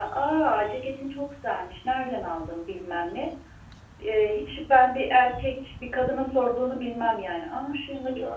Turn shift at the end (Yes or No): Yes